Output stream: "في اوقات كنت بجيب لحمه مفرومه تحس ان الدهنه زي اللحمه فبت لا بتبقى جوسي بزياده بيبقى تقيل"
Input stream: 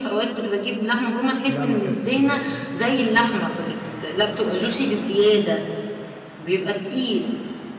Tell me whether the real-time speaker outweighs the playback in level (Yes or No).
No